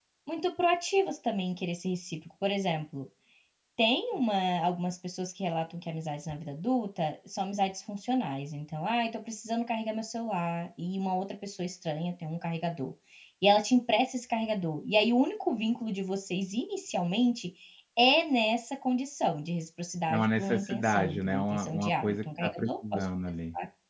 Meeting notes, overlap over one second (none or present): present